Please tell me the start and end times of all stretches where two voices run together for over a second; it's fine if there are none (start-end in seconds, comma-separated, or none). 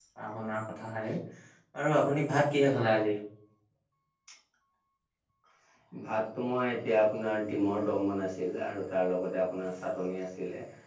none